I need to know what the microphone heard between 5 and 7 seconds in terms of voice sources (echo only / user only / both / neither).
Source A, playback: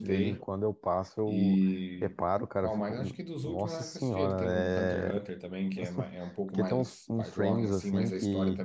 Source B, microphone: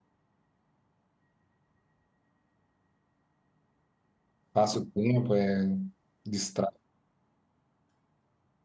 user only